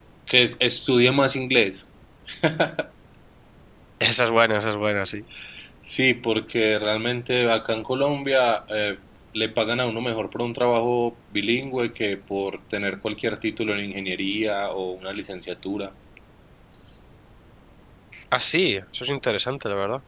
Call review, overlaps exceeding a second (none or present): none